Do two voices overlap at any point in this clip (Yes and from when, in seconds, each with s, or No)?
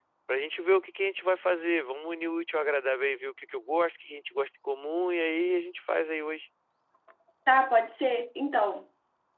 No